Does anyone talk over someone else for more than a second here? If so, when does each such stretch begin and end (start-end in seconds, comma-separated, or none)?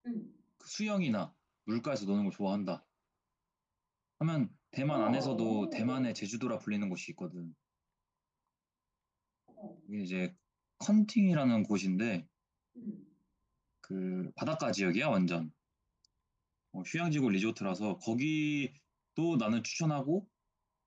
4.9-6.1